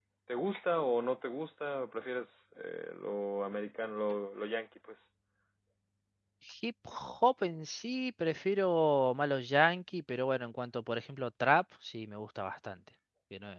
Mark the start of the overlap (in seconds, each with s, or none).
none